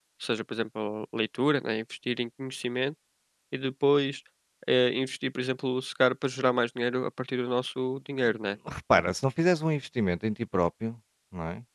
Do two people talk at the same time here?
No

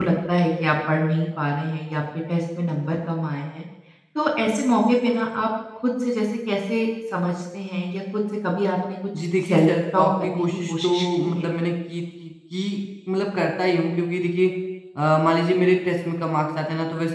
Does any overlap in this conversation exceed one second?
Yes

